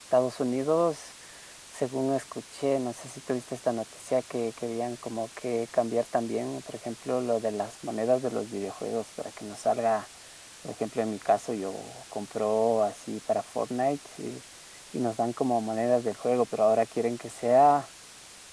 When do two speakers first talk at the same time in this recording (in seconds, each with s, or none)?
none